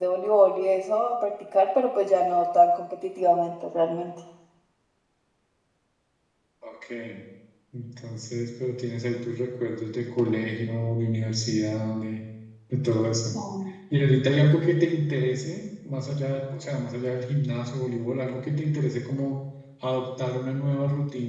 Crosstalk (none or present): none